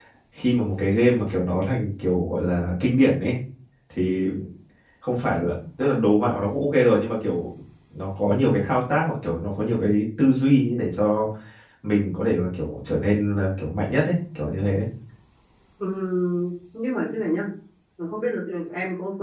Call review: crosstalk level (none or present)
none